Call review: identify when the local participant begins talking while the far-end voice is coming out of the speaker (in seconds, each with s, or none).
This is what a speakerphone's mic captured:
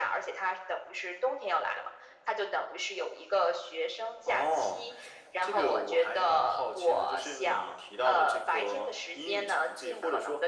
none